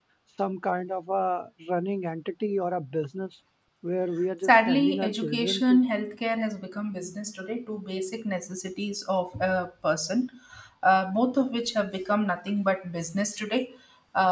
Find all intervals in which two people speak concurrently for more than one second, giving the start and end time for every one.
4.4-5.8

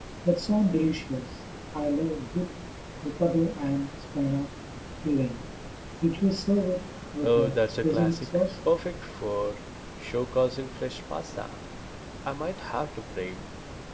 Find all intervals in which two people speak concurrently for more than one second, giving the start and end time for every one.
7.2-8.4

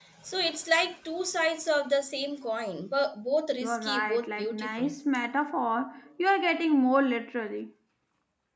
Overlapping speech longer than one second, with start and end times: 3.6-4.9

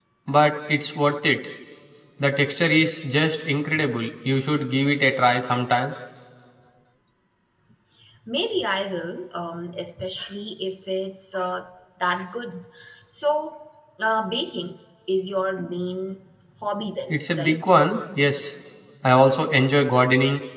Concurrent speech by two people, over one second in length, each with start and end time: none

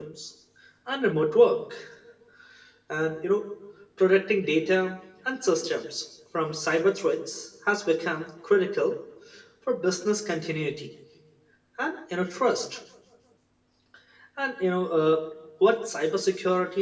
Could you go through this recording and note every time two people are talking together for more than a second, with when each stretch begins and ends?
none

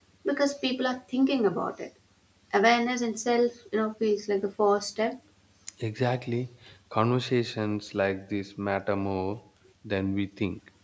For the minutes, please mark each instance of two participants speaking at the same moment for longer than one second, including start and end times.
none

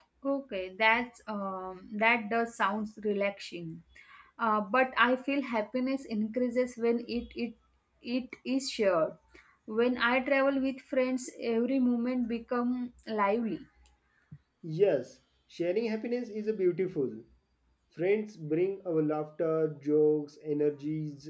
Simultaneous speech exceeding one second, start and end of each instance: none

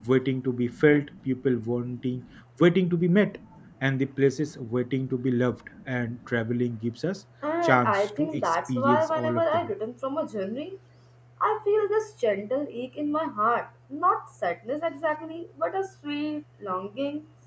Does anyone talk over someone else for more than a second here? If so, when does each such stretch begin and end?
7.6-9.7

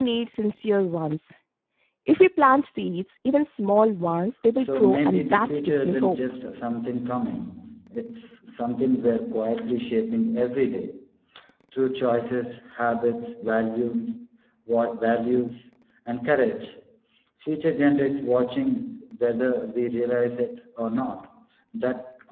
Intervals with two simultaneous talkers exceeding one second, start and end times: 4.5-6.2

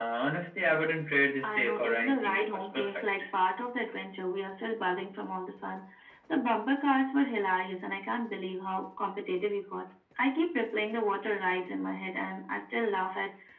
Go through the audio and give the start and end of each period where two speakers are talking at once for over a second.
1.4-3.2

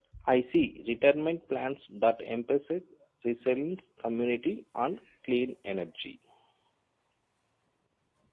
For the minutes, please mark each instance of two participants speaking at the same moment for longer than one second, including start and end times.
none

